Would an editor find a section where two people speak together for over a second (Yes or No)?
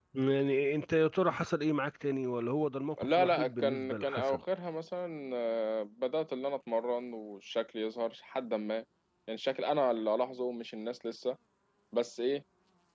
Yes